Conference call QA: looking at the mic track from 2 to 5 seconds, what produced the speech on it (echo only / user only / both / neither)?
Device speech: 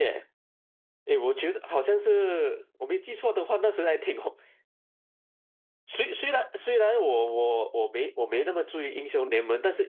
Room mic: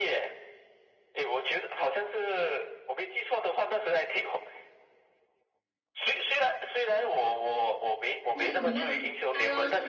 echo only